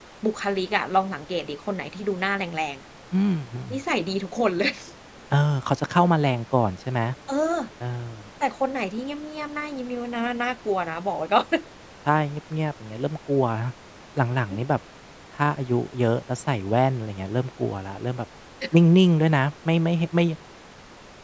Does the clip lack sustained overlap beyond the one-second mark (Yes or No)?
Yes